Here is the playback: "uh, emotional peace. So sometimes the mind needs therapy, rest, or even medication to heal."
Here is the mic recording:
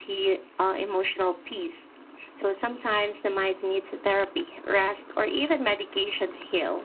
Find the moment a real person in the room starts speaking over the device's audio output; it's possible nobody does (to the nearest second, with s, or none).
none